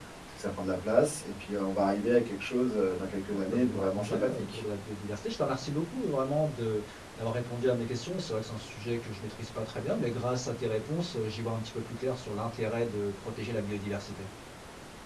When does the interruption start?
3.3 s

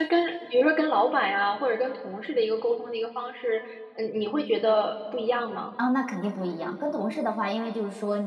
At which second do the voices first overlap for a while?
none

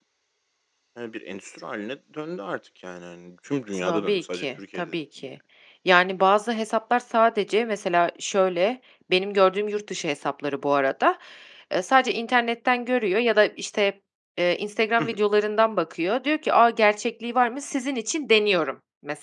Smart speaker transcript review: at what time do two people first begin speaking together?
3.7 s

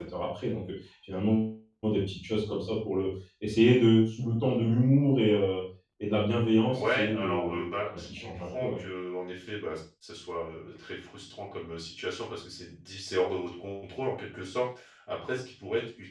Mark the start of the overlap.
6.7 s

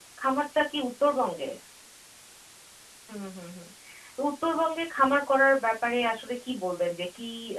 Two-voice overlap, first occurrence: none

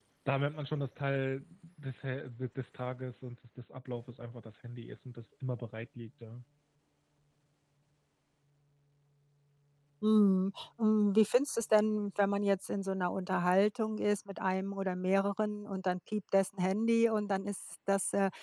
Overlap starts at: none

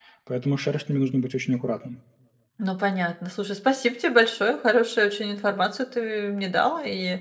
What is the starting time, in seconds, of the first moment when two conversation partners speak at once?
none

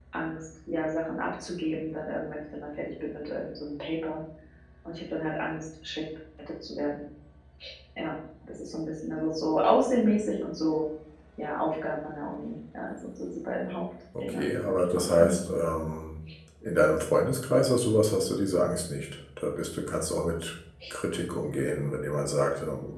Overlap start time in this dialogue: 14.2 s

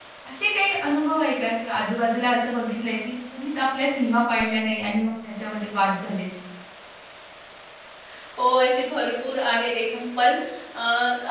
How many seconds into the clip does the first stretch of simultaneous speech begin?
none

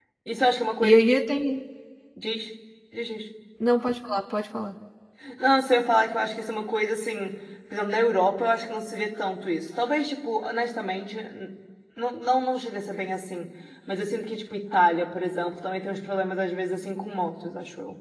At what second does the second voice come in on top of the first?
none

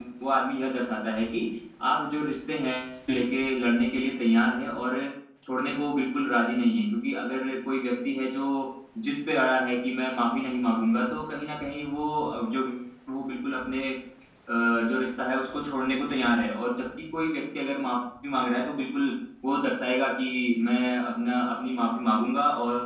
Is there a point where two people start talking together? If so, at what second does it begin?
none

